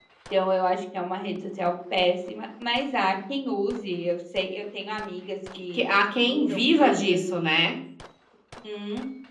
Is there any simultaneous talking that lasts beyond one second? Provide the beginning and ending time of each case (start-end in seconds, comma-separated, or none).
6.2-7.5